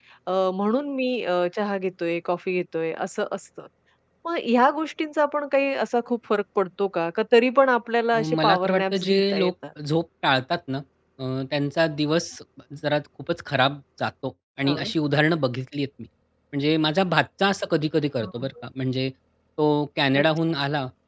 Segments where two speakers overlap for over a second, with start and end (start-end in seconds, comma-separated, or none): 8.1-9.5